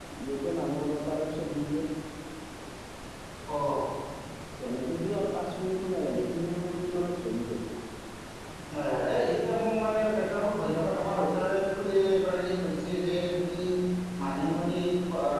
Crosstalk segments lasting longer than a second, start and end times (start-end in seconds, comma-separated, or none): none